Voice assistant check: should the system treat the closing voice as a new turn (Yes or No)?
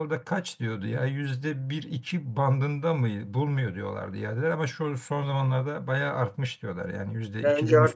Yes